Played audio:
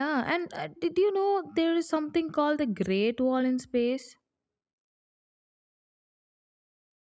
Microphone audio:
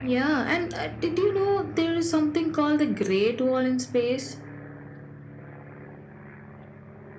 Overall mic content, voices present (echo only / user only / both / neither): echo only